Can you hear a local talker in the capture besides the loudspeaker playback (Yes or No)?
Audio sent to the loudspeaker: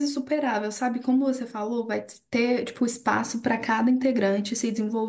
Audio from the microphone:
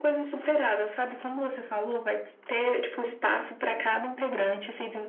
No